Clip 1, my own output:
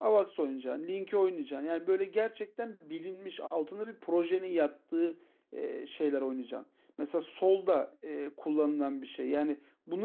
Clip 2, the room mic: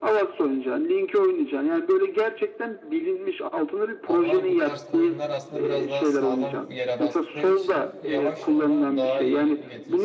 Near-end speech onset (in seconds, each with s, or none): 4.0 s